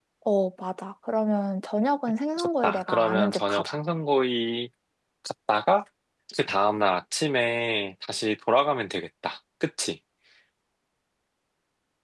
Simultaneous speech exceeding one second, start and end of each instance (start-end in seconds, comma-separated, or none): 2.4-3.8